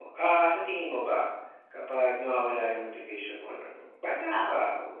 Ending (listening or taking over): listening